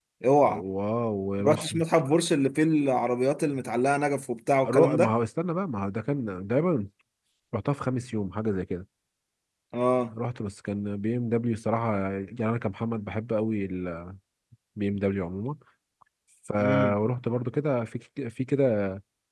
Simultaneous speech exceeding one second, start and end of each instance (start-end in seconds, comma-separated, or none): none